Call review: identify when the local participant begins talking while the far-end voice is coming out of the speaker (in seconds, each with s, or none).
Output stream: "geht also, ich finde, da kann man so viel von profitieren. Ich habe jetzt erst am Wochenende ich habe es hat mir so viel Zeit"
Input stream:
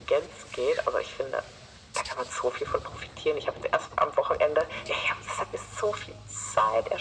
none